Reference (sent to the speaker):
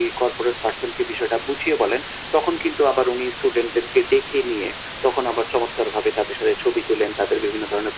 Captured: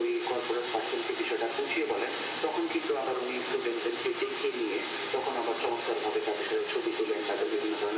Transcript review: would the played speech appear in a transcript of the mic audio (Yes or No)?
Yes